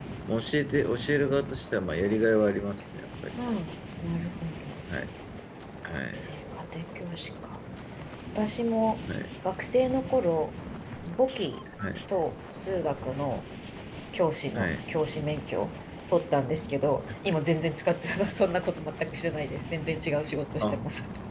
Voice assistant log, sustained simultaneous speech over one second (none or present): none